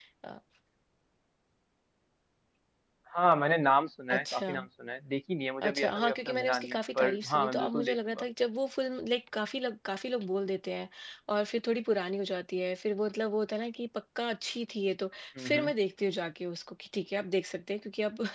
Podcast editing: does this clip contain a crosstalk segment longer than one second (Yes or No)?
Yes